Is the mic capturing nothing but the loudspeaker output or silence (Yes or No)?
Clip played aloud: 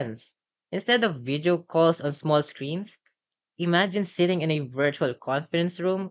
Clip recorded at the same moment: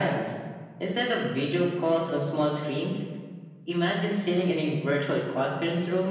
Yes